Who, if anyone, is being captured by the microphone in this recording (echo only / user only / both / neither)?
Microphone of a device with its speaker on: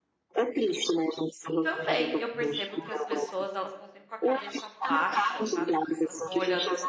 both